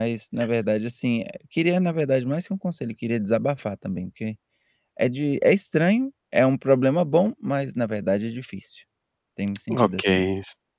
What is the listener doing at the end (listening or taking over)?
taking over